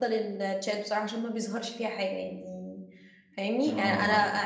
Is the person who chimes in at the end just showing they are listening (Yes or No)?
Yes